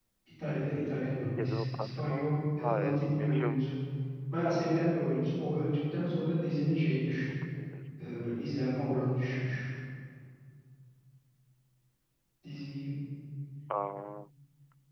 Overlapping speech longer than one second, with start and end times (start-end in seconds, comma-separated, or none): 1.4-3.6